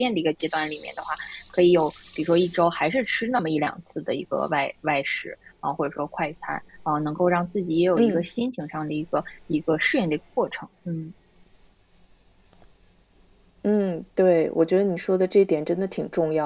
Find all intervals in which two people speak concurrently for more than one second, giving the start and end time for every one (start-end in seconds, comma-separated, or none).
none